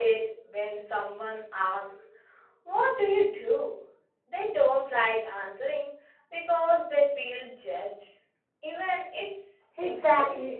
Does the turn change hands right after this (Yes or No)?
Yes